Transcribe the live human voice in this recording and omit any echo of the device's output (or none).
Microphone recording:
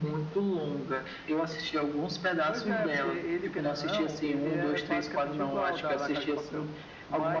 none